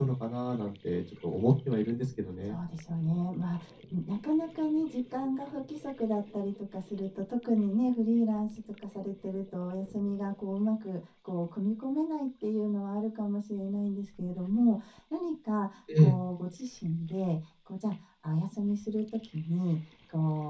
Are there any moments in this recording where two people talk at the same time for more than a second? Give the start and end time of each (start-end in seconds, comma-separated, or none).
none